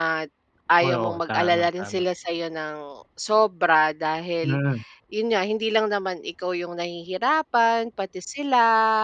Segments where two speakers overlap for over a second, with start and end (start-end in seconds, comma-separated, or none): 0.8-2.0